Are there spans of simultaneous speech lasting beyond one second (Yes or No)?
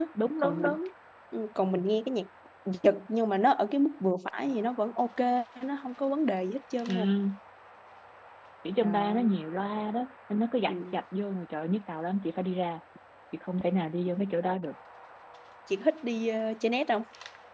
No